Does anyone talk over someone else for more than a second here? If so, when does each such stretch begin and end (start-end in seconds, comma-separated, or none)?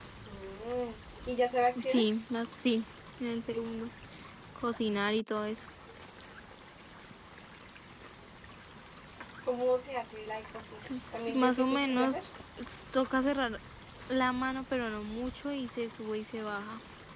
10.9-12.2